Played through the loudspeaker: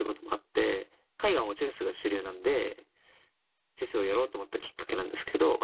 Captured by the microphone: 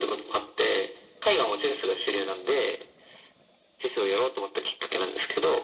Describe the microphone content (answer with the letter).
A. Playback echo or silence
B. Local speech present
A